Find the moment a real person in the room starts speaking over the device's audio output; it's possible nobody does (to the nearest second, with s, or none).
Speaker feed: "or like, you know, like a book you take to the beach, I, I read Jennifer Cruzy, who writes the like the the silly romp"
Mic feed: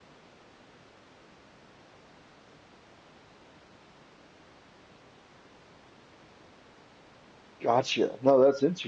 8 s